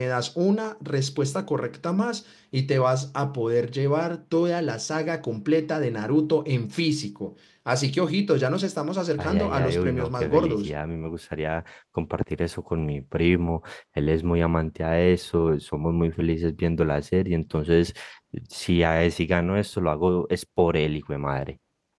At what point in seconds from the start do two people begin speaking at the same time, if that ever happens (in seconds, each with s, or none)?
9.2 s